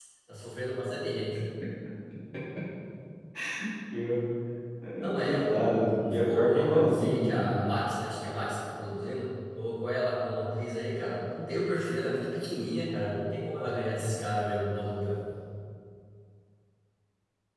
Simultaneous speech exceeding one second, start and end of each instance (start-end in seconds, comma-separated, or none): 5.2-7.5